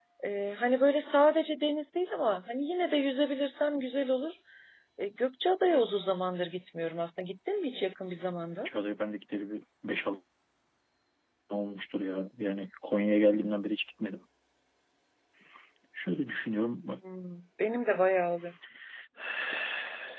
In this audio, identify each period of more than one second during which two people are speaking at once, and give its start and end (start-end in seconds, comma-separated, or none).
none